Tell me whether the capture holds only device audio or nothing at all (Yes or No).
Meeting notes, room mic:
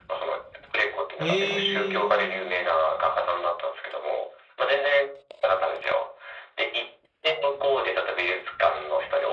No